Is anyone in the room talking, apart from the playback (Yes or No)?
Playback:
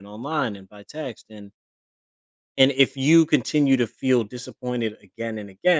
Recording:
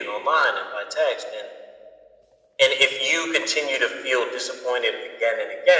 No